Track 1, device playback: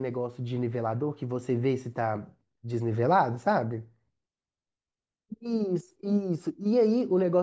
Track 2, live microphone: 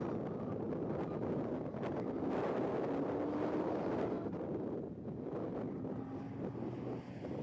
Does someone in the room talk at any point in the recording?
No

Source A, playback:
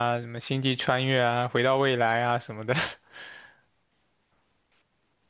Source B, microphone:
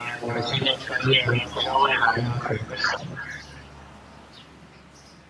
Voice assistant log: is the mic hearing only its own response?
Yes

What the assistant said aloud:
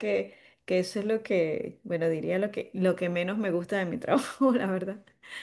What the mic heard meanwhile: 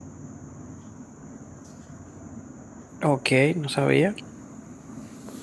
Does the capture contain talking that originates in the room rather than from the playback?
Yes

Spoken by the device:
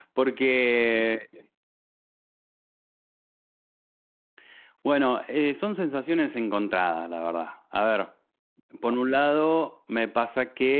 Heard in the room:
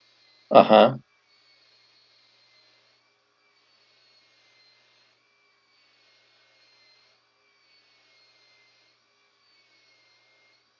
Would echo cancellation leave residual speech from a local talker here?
Yes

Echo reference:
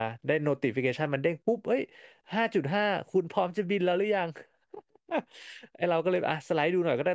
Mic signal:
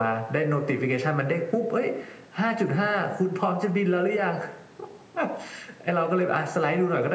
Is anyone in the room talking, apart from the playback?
No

